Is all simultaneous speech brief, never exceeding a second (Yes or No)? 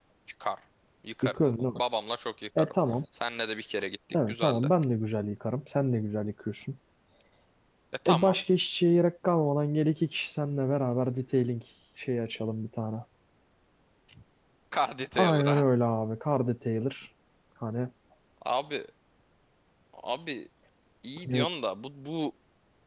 Yes